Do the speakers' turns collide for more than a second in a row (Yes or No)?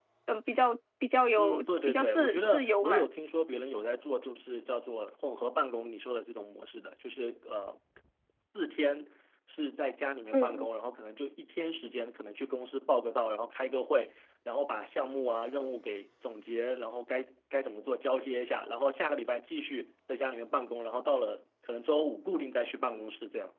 Yes